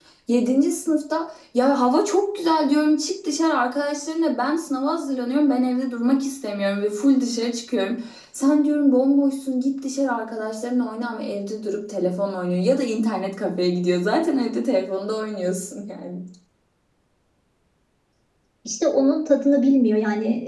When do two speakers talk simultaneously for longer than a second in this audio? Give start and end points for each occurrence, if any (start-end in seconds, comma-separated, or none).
none